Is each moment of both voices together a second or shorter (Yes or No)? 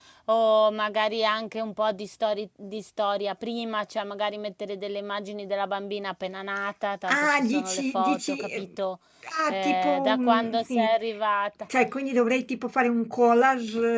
No